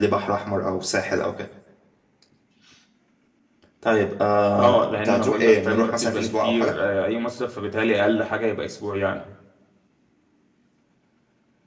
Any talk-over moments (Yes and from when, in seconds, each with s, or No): Yes, from 4.6 s